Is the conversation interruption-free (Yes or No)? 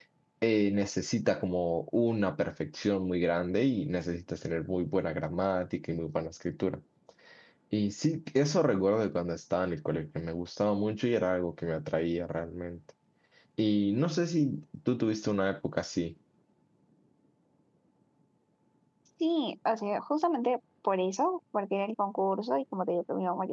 Yes